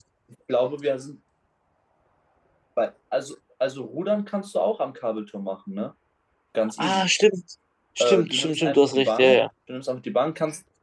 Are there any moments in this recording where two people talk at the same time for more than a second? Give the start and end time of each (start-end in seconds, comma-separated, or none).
8.0-9.4